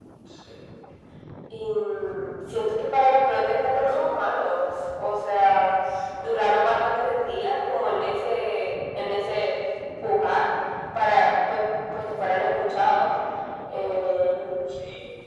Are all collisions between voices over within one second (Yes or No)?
Yes